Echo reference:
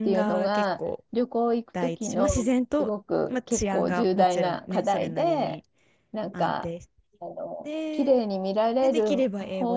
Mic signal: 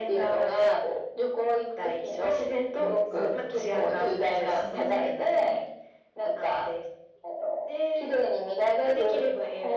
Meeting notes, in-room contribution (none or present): present